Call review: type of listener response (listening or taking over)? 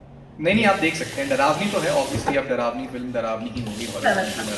listening